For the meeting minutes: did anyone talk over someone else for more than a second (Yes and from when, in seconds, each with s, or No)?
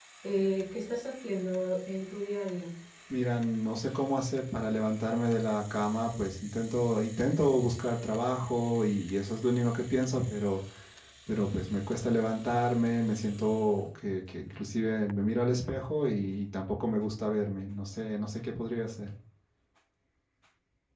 No